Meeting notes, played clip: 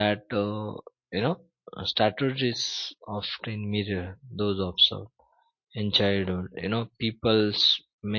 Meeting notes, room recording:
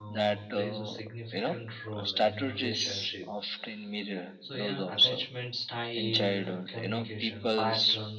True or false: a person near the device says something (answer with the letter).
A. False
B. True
B